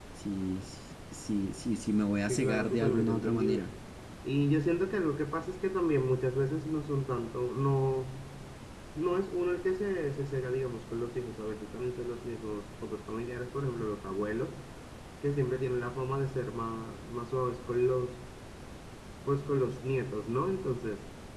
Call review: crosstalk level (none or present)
present